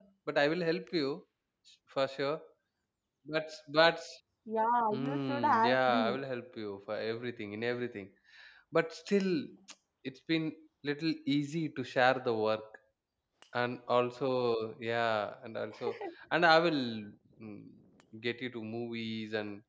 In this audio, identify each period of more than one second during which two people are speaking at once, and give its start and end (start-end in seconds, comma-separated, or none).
4.9-6.2